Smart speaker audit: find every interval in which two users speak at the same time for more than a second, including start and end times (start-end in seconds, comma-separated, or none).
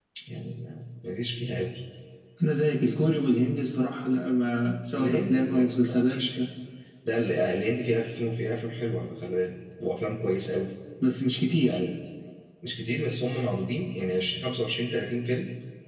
4.9-6.2